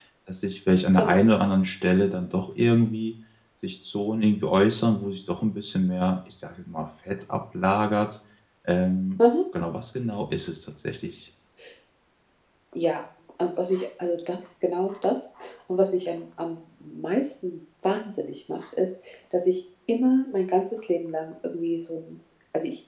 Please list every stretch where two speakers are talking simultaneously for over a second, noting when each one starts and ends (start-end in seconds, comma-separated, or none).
none